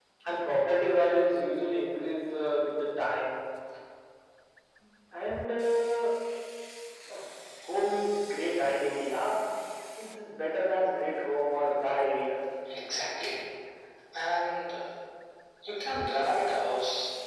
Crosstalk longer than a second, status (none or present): none